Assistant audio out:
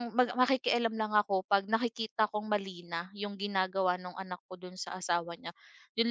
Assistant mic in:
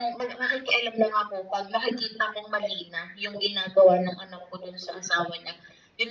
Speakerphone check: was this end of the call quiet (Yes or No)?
Yes